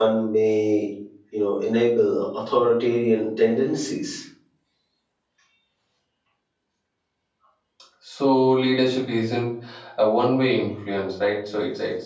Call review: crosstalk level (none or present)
none